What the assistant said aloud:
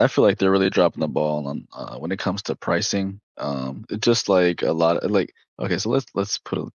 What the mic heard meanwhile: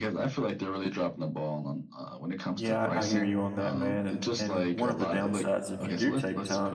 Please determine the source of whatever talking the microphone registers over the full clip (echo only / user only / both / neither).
both